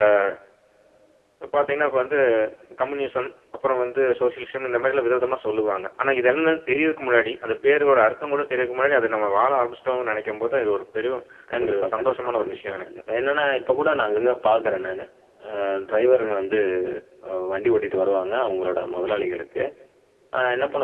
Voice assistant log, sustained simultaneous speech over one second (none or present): present